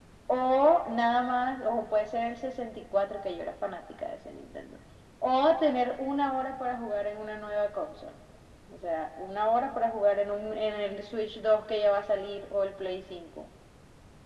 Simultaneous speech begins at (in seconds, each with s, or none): none